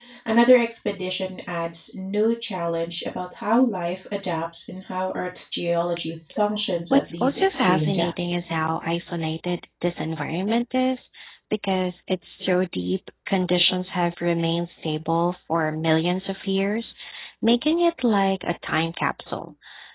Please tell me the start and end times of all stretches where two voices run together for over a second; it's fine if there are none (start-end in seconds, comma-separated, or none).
6.9-8.4